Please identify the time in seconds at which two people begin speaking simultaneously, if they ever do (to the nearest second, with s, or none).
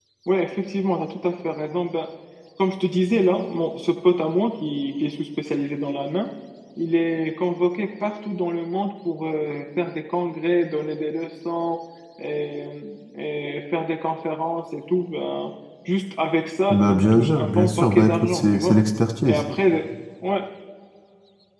17 s